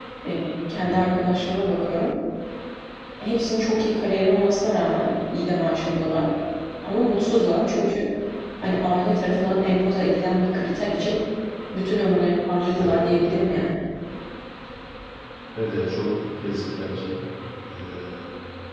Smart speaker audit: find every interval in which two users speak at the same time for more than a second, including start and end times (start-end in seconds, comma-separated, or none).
none